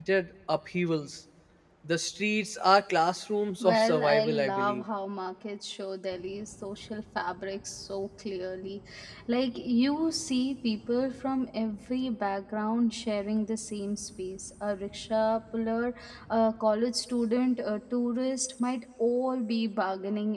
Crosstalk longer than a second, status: present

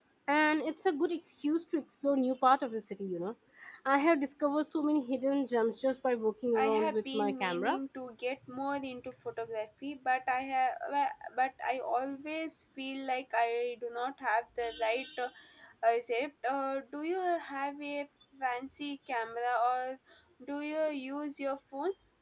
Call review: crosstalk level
present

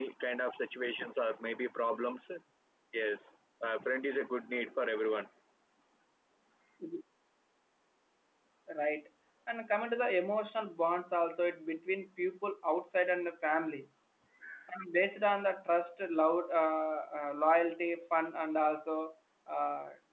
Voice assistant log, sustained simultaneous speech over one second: none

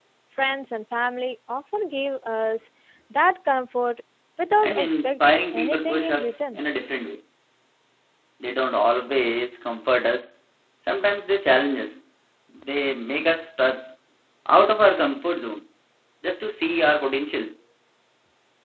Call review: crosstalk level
present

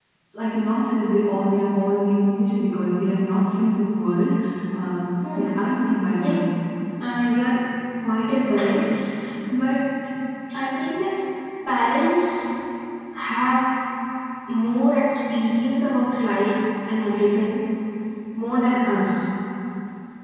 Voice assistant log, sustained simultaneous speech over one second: none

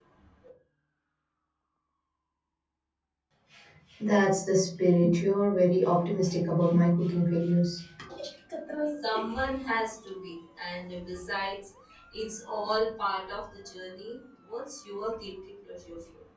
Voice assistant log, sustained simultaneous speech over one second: none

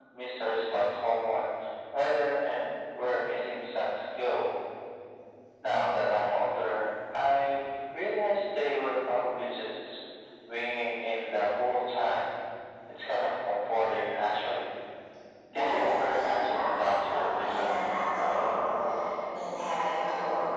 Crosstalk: present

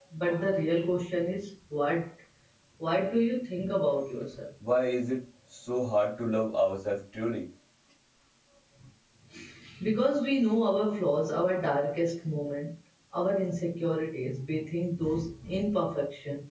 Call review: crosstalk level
none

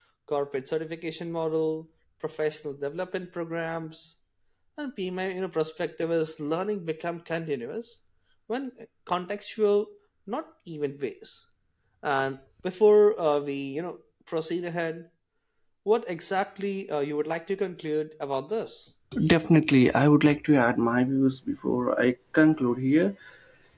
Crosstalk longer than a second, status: none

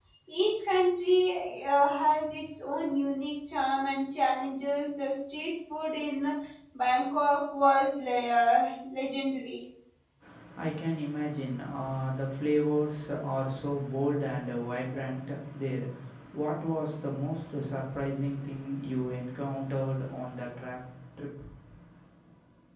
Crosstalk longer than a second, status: none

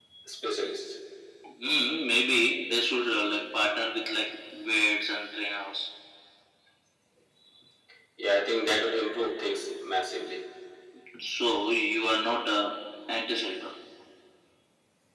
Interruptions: none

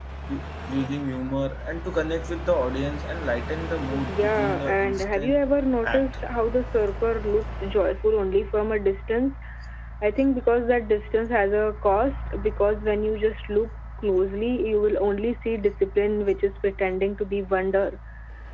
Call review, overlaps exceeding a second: present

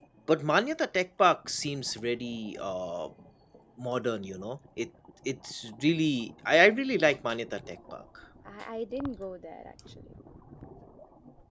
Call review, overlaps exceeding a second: none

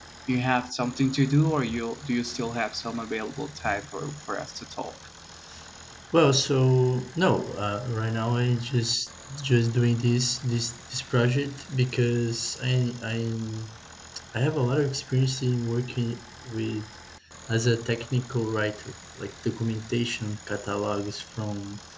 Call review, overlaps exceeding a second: none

